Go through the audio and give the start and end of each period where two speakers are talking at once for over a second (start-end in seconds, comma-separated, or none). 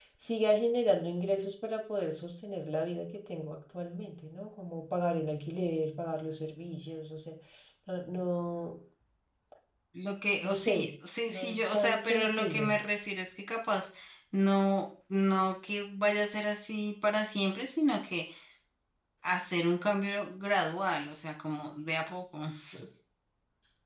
11.3-12.7